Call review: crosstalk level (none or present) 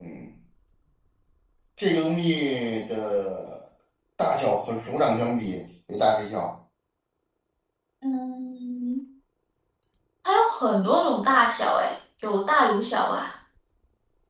none